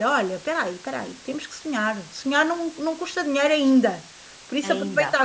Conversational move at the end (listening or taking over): listening